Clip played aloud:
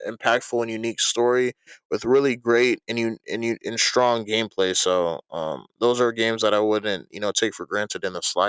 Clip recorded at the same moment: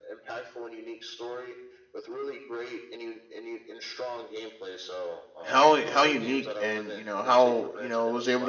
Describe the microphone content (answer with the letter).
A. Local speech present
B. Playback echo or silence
A